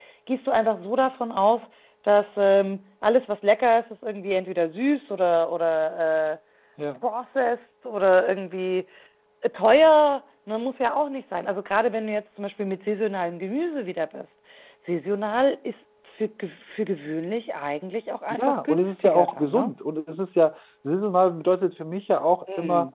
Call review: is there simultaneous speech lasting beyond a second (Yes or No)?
Yes